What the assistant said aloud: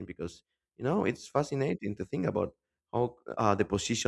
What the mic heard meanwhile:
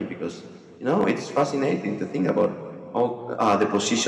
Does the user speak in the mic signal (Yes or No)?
No